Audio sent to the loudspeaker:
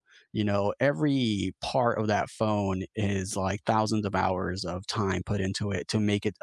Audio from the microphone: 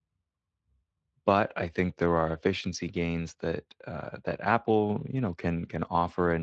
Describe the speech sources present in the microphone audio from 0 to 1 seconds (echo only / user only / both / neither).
neither